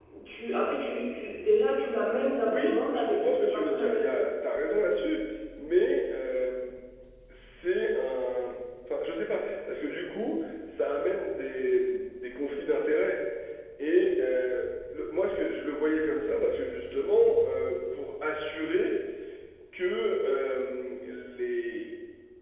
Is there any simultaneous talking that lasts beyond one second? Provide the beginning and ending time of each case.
2.4-4.1

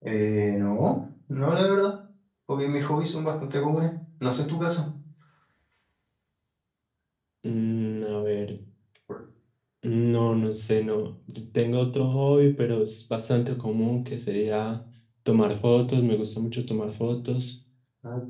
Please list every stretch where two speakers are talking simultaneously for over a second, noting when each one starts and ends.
none

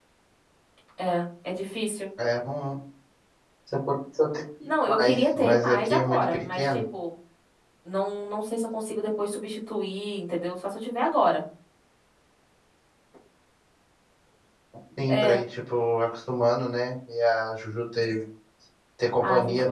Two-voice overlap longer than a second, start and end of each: 4.7-6.8

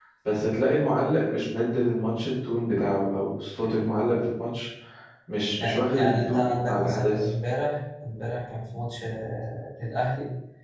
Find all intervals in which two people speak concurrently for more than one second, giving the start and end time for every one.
5.6-7.3

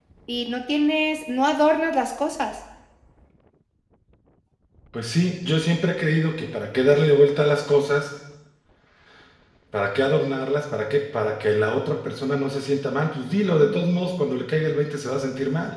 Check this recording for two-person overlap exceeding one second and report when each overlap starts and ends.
none

